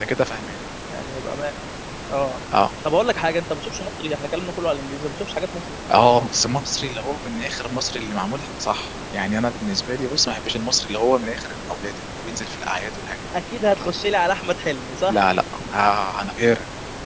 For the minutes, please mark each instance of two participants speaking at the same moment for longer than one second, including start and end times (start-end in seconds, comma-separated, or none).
none